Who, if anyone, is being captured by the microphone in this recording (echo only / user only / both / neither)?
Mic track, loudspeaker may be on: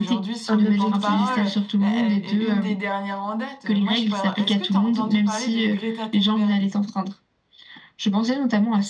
both